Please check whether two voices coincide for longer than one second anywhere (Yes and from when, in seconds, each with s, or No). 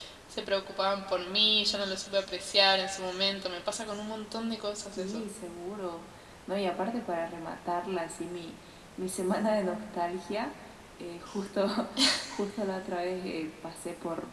No